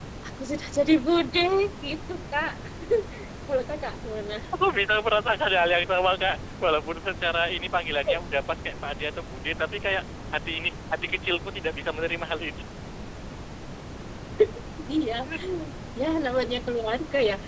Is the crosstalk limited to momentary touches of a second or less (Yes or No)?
Yes